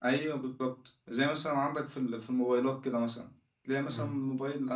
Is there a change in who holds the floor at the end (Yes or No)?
No